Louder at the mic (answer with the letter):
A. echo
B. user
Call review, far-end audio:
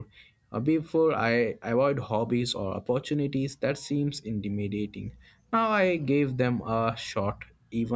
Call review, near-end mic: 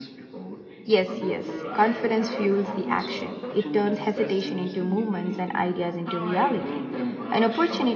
B